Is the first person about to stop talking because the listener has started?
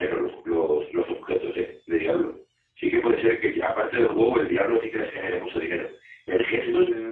No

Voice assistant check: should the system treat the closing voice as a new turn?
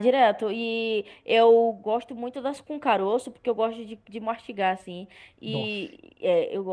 No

